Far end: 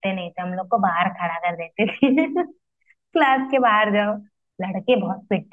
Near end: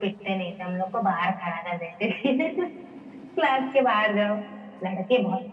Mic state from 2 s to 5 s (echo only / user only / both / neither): echo only